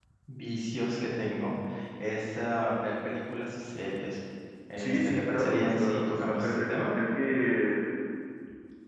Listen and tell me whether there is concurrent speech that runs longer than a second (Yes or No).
Yes